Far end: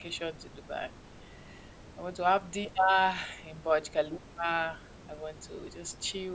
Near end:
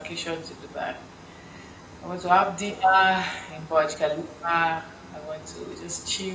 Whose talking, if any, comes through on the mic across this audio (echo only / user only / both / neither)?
echo only